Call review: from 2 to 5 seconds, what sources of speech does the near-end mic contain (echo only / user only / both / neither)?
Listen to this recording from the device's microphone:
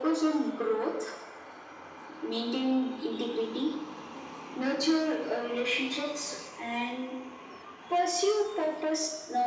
echo only